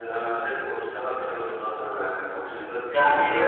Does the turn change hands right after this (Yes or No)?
Yes